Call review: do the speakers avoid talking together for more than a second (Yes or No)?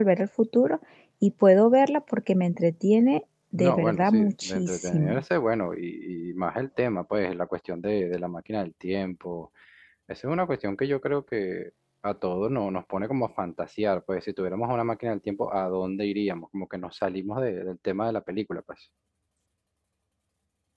No